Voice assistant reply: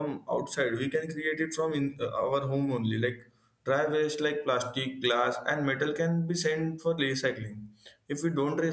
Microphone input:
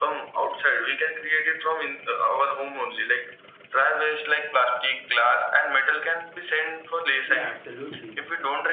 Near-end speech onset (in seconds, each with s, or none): 7.2 s